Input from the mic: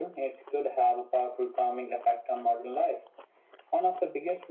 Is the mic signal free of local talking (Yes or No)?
Yes